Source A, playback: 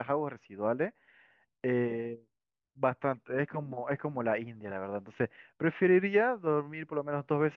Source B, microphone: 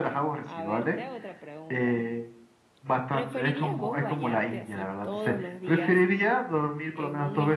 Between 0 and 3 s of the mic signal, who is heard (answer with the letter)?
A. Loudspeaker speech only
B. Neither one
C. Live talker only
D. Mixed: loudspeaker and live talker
D